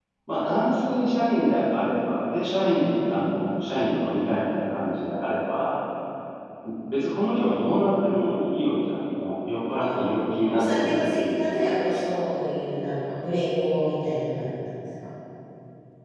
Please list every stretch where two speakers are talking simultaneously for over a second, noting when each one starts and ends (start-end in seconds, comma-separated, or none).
10.5-12.2